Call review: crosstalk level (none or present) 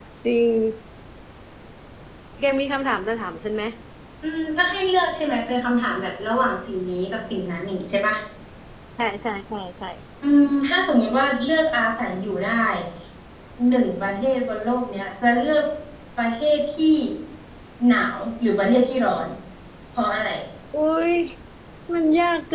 none